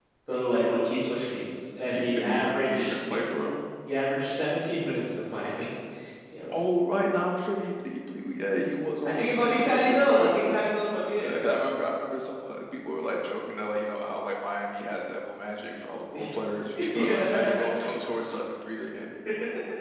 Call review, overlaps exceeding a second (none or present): present